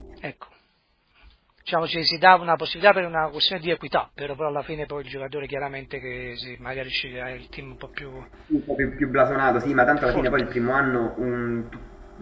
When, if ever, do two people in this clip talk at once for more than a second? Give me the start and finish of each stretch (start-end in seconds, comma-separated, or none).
none